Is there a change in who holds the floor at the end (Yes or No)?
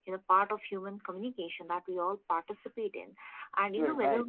No